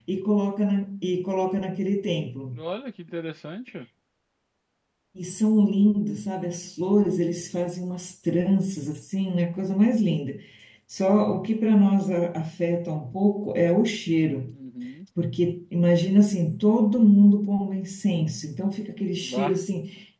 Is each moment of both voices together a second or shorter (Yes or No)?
Yes